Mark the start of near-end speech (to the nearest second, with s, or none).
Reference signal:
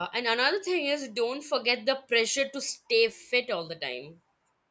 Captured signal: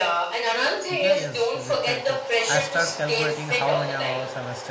1 s